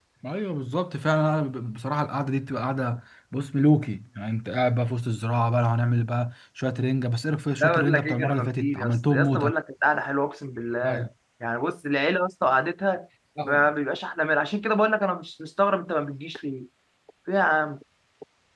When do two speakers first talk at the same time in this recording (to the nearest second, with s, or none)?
8 s